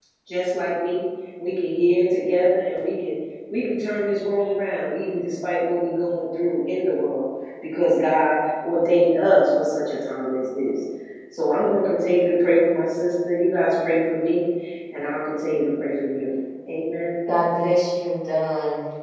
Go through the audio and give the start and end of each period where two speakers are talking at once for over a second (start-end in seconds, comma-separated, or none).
none